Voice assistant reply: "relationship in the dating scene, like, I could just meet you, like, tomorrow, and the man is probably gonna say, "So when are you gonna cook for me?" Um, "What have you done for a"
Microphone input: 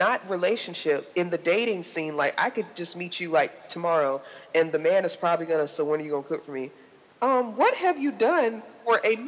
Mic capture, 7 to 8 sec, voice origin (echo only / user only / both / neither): echo only